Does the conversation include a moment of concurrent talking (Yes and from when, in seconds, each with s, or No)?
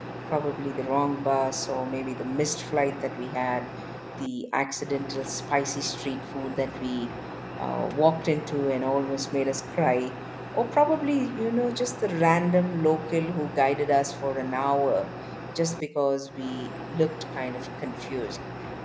No